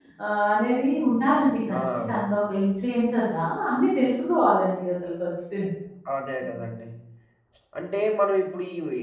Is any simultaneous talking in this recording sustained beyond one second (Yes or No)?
No